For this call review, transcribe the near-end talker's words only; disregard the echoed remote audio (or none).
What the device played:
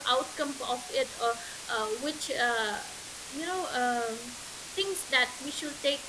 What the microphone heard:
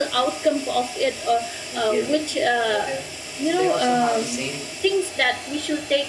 and we are living uh, there so they also have the same